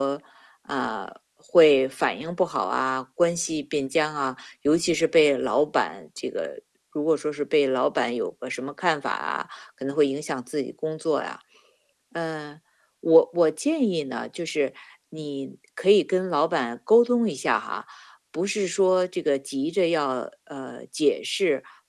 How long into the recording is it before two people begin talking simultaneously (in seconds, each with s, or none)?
none